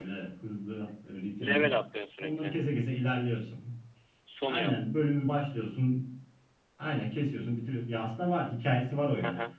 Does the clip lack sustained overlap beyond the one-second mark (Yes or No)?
Yes